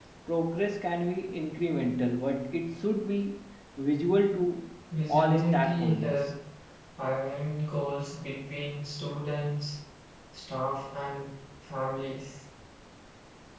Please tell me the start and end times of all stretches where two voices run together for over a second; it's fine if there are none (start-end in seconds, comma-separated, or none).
5.1-6.3